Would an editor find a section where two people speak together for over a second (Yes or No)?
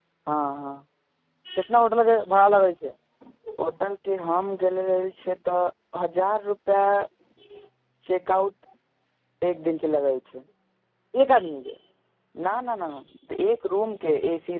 No